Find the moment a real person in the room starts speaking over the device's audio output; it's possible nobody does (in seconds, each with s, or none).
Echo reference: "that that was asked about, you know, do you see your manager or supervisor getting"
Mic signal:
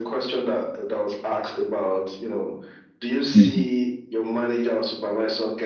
3.3 s